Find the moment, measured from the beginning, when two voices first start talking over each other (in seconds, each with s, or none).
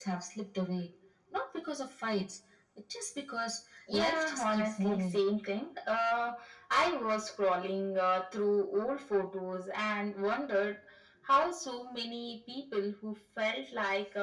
3.9 s